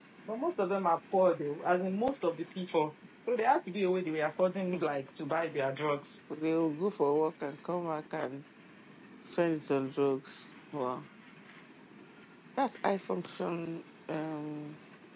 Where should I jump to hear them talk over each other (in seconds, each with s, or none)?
none